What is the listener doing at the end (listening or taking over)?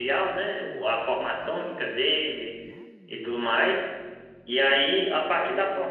listening